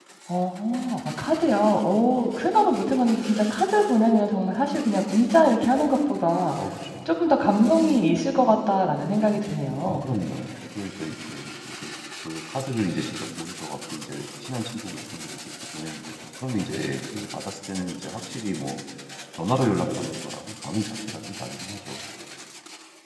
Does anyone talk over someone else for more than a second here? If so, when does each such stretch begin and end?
none

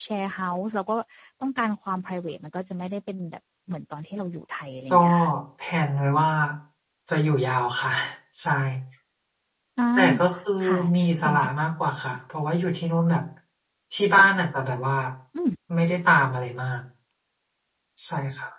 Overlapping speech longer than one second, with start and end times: none

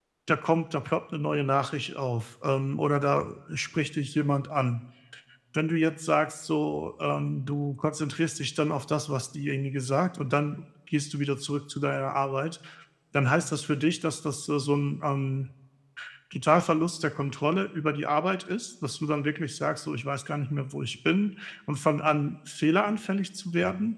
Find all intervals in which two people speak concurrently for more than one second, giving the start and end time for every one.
none

